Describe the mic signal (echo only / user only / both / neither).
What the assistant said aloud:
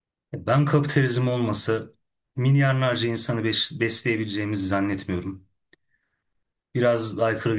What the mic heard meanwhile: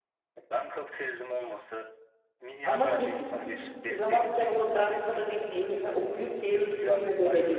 both